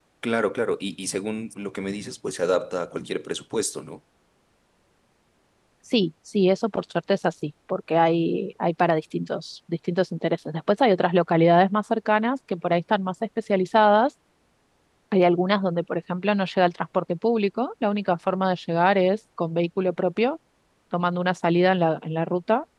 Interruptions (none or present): none